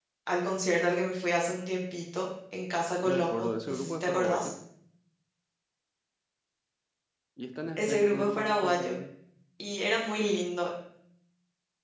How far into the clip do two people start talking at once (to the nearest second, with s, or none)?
3 s